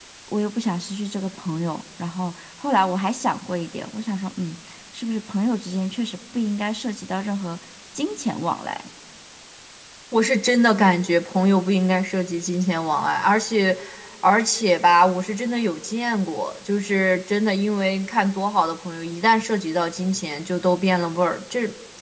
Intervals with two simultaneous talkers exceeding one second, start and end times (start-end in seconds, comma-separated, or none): none